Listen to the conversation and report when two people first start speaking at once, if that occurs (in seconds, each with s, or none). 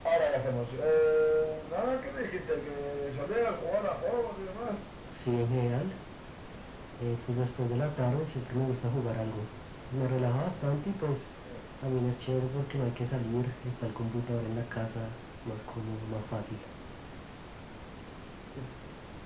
none